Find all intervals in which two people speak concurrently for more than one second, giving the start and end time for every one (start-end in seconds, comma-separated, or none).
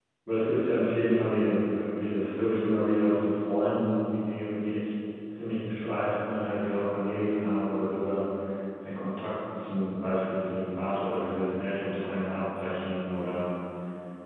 none